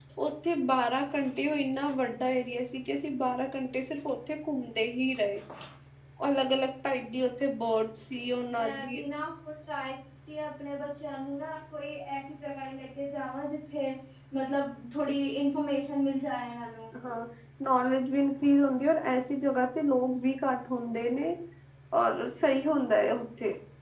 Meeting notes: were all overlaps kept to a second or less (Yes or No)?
Yes